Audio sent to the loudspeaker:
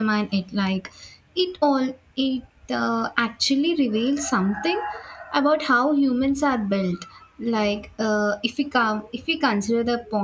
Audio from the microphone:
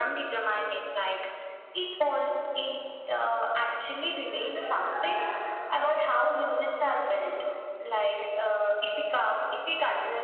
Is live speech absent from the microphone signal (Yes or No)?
Yes